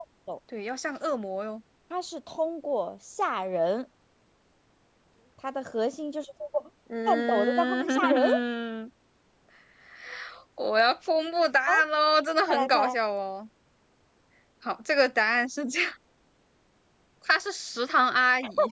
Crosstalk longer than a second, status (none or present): present